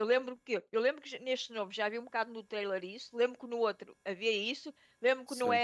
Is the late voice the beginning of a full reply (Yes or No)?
No